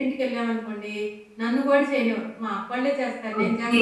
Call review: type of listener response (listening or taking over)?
taking over